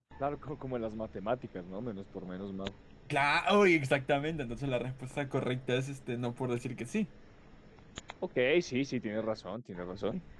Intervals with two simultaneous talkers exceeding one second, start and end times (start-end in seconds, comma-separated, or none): none